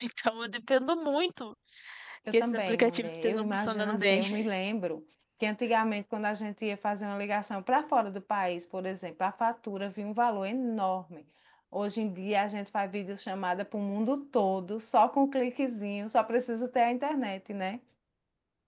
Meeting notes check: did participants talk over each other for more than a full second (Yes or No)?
Yes